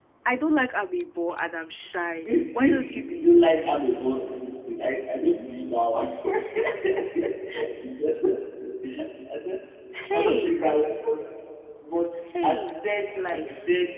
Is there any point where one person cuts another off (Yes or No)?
Yes